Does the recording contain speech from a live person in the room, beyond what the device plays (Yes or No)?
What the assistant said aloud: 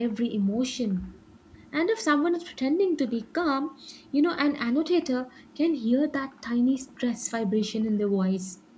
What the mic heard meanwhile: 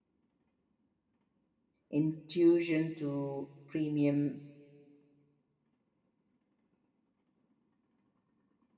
Yes